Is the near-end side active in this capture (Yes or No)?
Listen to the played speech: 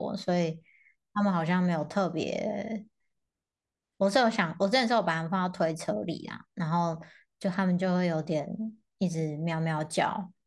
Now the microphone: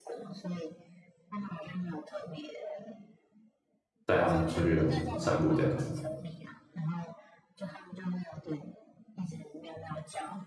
Yes